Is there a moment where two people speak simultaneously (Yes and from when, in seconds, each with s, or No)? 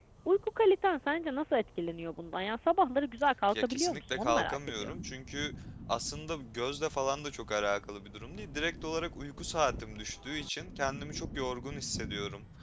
Yes, from 3.5 s